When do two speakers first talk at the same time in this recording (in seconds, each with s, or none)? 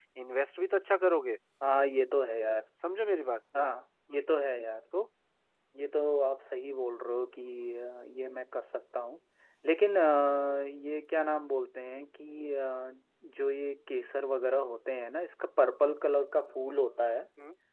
none